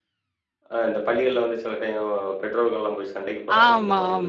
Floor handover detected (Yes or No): Yes